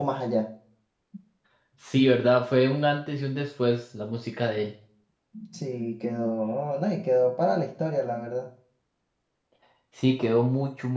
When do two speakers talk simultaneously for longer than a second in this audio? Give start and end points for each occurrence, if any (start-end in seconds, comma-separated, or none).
none